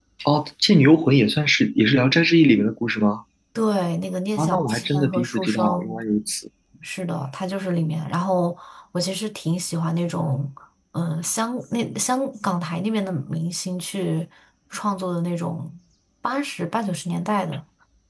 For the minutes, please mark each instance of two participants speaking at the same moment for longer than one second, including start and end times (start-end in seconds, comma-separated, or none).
4.4-6.0